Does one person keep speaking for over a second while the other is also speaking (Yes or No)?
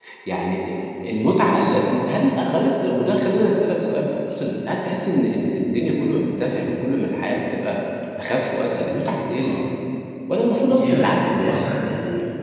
Yes